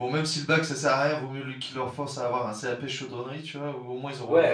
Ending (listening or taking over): taking over